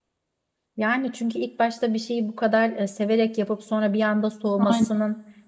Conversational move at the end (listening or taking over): listening